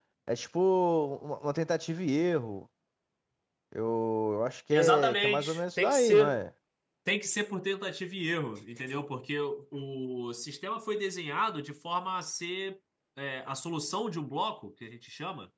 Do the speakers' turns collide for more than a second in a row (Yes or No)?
Yes